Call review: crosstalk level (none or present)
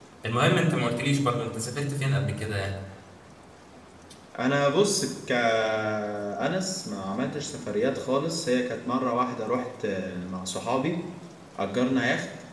none